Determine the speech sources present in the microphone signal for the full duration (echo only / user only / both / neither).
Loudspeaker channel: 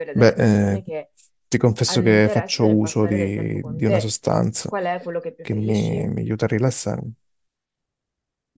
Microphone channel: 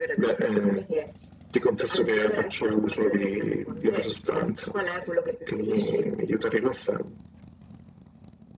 echo only